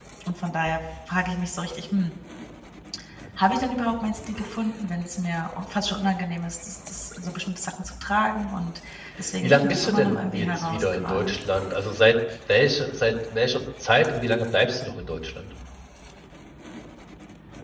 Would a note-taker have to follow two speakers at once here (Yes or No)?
Yes